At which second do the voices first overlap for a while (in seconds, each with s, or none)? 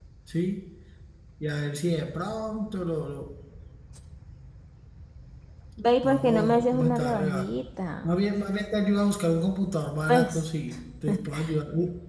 6.0 s